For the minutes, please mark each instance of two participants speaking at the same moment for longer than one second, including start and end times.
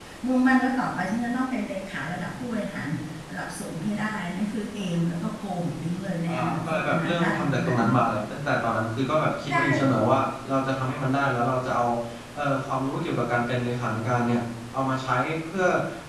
6.3-7.8

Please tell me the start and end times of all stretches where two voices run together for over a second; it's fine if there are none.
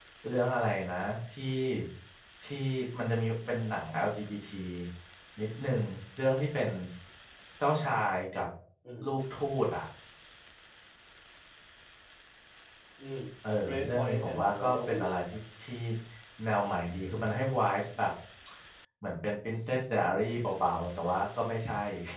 13.7-15.1

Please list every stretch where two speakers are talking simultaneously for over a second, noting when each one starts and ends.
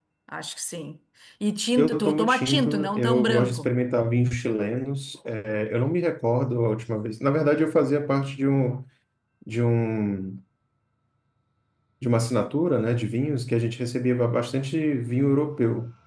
1.8-3.7

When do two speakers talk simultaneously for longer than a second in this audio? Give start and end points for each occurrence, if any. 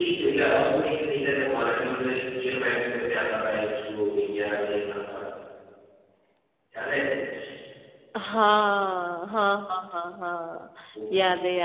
none

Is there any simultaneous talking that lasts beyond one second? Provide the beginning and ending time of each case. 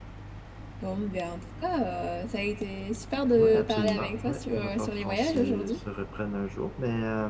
3.4-5.8

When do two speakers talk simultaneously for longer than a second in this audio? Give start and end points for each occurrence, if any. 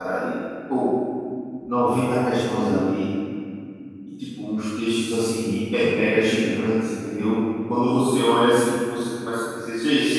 none

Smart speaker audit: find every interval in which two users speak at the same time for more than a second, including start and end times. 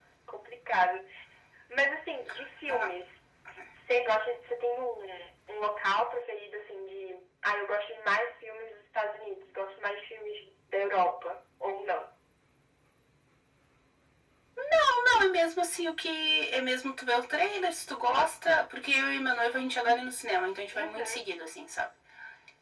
none

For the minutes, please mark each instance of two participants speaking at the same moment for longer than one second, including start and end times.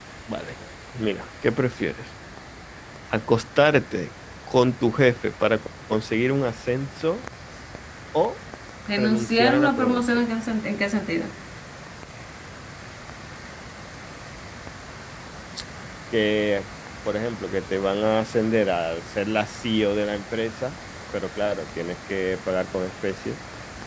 8.9-10.2

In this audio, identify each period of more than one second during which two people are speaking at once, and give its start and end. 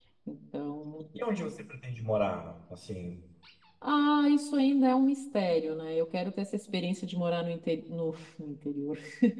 none

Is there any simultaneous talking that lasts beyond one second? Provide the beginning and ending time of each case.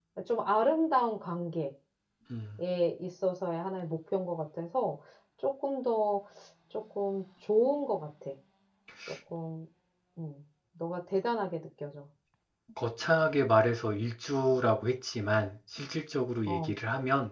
none

